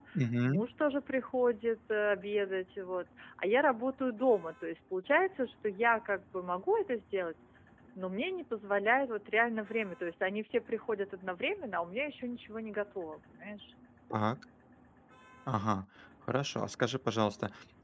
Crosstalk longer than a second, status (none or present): none